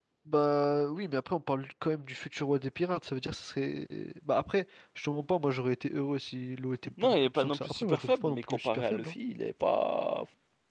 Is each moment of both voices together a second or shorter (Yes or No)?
No